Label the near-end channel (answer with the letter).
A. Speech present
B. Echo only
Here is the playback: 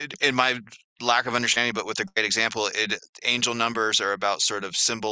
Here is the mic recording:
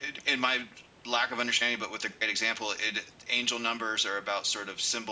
B